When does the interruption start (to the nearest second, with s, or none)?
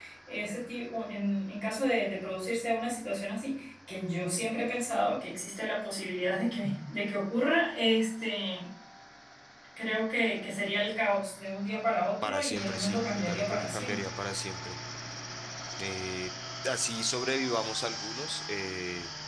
12 s